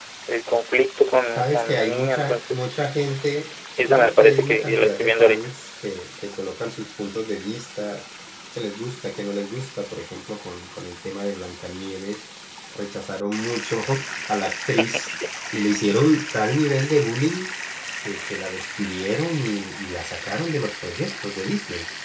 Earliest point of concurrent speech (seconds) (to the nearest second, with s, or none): 1 s